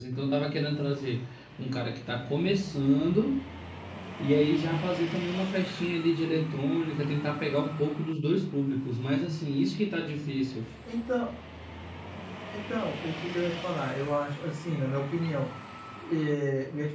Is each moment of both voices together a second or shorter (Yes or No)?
Yes